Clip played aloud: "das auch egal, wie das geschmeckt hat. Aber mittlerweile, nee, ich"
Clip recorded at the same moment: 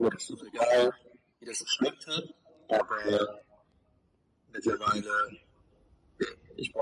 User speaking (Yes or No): No